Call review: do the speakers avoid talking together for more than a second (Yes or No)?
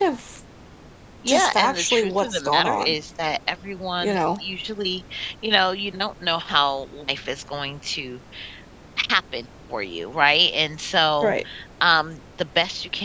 No